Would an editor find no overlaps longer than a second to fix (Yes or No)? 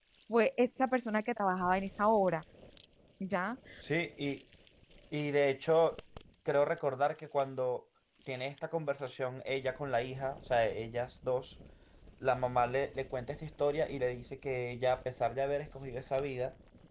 Yes